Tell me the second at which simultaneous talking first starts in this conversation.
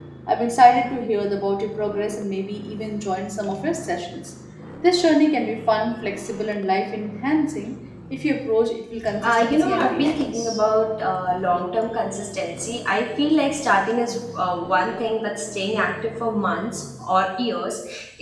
9.2 s

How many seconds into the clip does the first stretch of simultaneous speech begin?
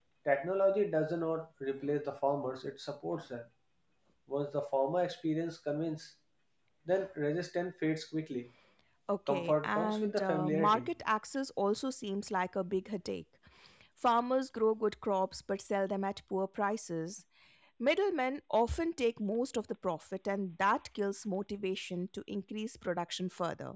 9.3 s

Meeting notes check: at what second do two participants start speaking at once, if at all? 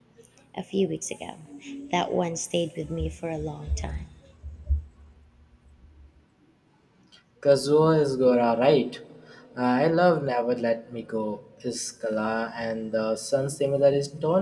none

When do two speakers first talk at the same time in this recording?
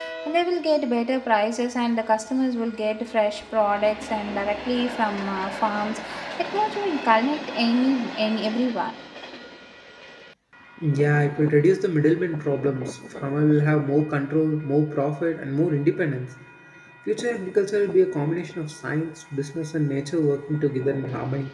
none

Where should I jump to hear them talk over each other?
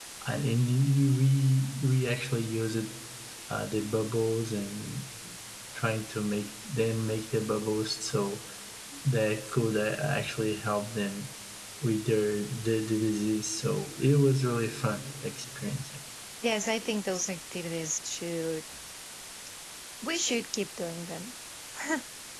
none

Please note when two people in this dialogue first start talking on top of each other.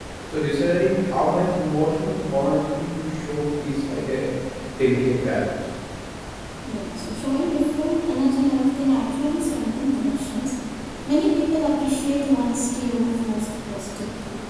none

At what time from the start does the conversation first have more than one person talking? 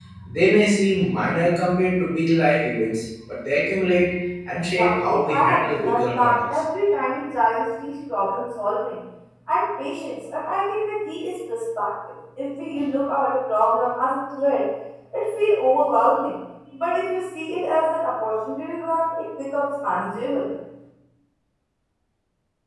4.8 s

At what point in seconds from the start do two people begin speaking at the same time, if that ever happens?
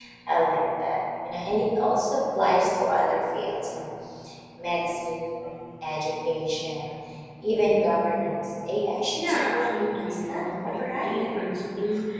9.2 s

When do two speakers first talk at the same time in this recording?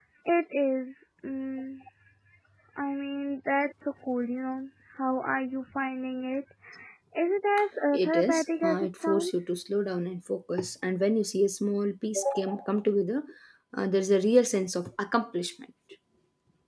7.9 s

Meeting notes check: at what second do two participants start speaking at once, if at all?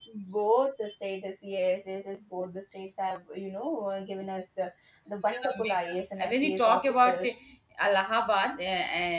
5.3 s

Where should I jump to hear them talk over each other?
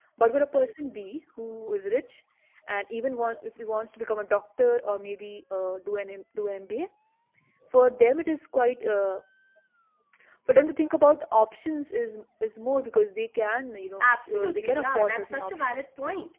14.0 s

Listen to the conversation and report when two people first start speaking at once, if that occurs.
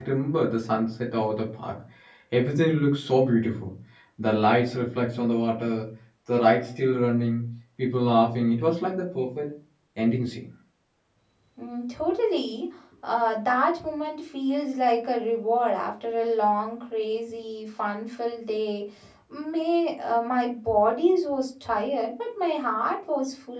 none

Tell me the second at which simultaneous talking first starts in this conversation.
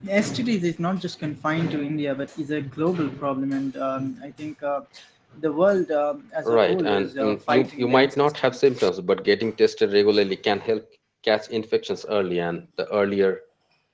6.5 s

